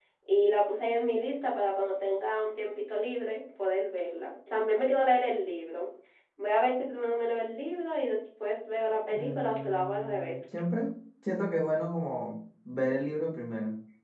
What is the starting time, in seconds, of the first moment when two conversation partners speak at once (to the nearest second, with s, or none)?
9 s